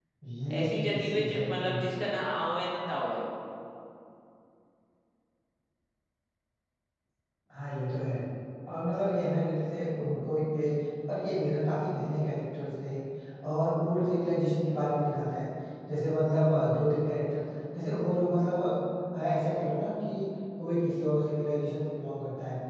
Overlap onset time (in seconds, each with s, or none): 0.6 s